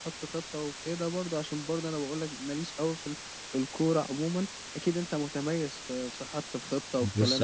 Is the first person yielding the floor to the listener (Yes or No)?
Yes